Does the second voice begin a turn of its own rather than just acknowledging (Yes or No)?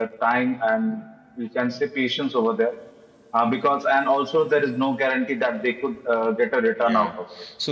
Yes